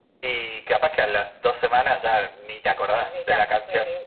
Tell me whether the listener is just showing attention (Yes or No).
No